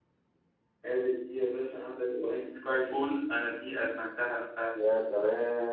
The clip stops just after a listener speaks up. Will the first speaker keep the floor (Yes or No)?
No